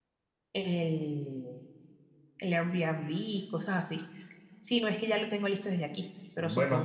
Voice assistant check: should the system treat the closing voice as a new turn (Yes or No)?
Yes